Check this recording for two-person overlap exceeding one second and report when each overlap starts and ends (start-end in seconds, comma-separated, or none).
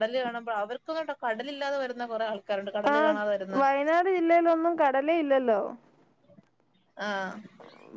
none